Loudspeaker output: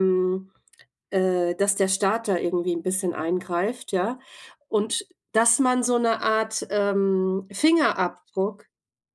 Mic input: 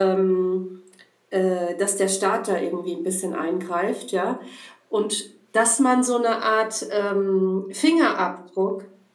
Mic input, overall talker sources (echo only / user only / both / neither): echo only